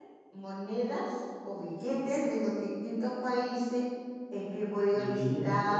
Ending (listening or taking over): listening